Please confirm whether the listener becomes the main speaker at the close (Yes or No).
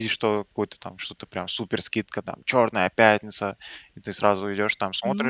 Yes